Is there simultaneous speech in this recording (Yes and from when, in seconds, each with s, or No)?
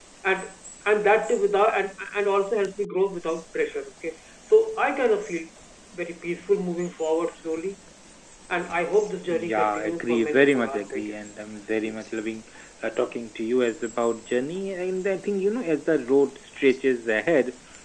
Yes, from 9.3 s